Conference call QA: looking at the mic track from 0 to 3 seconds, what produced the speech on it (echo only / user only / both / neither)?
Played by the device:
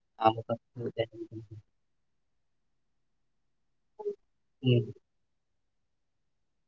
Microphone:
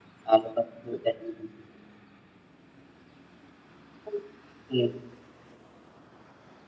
echo only